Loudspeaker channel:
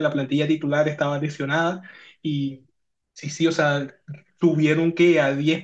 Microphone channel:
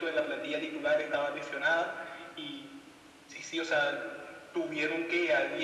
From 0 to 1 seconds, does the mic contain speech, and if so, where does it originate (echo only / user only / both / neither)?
echo only